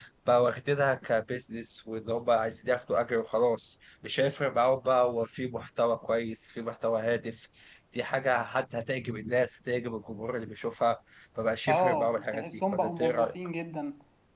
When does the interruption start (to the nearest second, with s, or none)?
12 s